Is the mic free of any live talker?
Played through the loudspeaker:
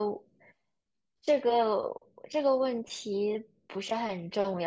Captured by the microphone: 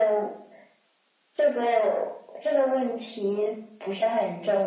Yes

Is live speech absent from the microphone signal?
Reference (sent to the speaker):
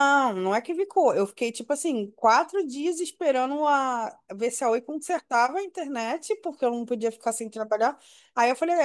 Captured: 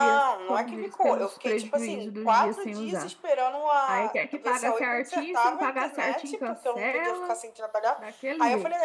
No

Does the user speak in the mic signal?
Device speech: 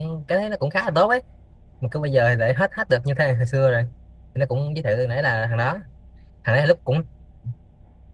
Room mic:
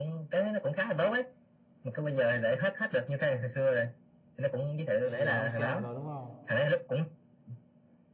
Yes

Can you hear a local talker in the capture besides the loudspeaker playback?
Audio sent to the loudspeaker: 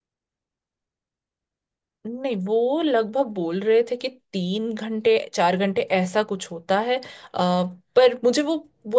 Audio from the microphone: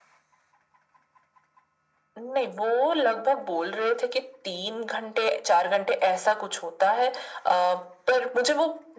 No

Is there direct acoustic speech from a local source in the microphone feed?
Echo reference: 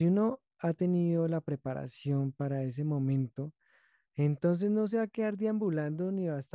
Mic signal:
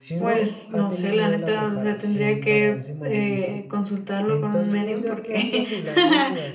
Yes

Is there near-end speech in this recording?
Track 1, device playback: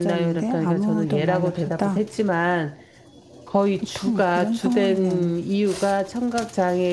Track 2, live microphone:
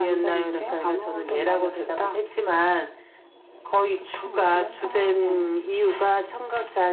No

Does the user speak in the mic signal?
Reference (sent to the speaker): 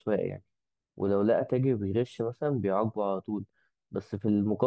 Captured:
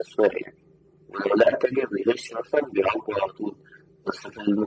No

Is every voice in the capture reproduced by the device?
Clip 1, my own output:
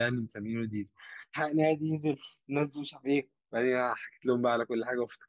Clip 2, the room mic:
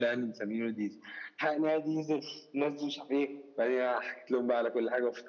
Yes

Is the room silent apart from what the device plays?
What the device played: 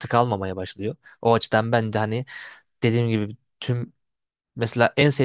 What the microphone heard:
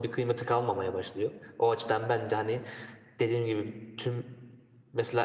Yes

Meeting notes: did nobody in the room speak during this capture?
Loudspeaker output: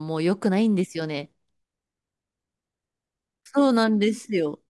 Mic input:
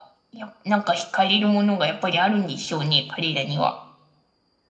No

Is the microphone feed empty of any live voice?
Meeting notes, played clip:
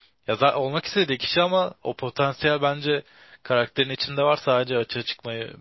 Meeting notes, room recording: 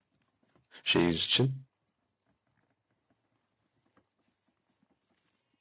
No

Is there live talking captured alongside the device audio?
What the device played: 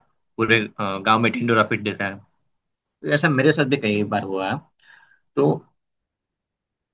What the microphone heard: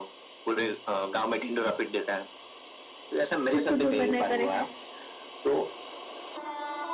Yes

